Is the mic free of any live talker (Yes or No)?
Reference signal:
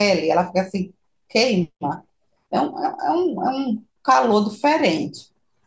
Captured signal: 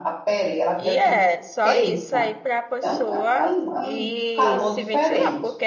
No